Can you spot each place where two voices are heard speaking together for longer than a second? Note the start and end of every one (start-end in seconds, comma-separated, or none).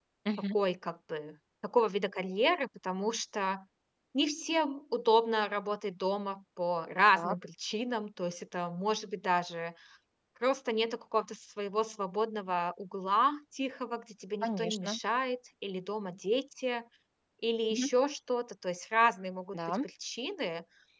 none